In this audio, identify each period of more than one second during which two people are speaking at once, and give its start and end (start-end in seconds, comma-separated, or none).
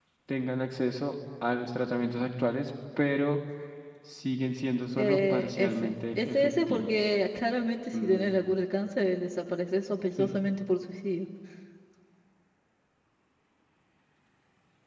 5.0-7.1